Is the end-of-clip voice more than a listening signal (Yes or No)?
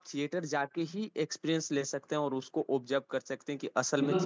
Yes